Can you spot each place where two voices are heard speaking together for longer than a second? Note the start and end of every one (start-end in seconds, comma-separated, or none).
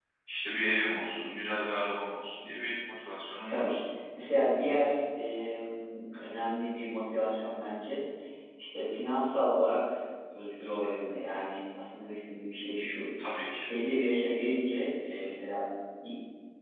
none